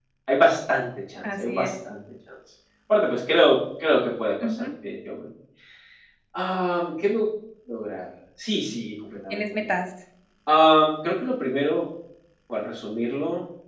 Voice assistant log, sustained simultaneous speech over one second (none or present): none